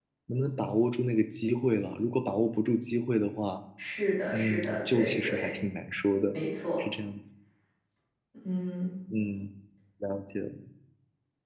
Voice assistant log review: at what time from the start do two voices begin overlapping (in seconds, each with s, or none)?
4.3 s